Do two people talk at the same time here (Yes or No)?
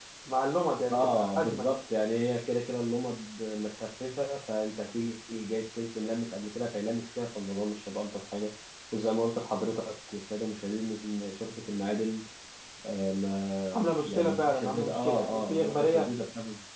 Yes